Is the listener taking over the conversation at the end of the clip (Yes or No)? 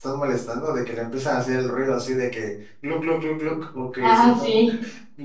No